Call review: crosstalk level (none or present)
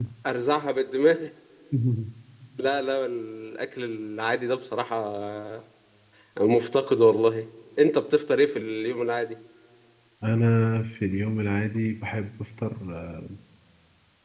none